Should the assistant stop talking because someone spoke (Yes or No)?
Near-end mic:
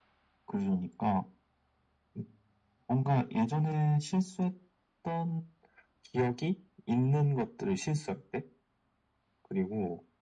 No